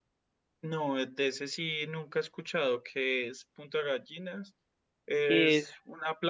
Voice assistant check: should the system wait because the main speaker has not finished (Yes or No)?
Yes